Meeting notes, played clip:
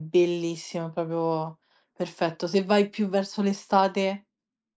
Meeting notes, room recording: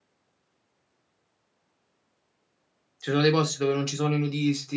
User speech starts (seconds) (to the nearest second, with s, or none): 3 s